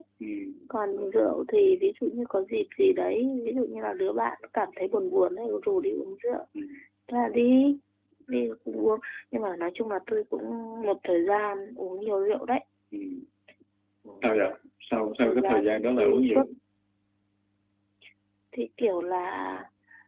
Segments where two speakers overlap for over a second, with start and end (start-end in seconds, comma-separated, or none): 14.9-16.4